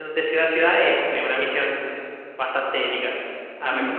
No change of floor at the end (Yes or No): No